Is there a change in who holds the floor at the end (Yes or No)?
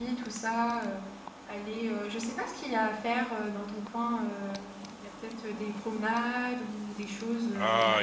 Yes